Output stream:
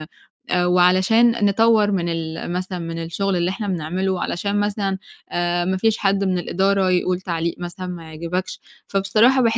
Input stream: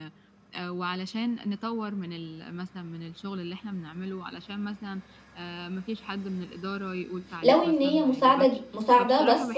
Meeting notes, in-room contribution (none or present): present